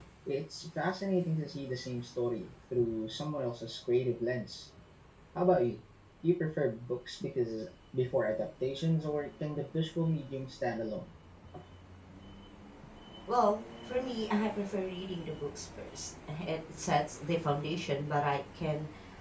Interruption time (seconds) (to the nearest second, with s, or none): none